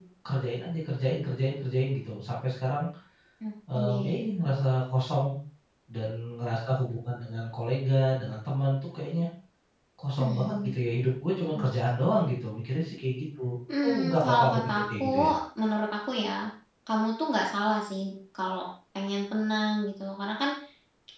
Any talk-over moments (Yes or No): Yes